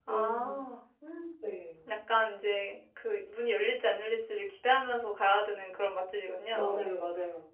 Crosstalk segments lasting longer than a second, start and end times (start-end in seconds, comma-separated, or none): none